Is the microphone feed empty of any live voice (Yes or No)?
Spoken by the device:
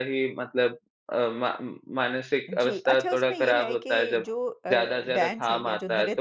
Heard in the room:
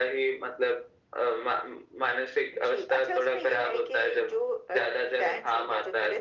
Yes